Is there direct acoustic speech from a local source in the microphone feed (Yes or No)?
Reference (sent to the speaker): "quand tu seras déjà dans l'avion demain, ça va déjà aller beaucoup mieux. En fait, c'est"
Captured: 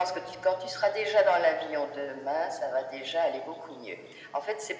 No